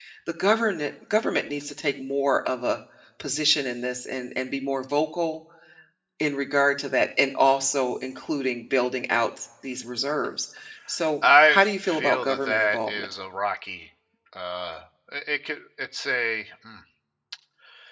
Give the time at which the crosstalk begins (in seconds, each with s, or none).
11.4 s